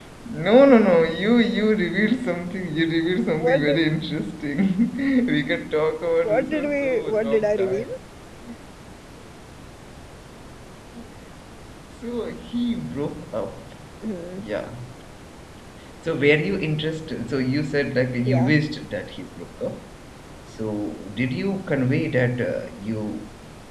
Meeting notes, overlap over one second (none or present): present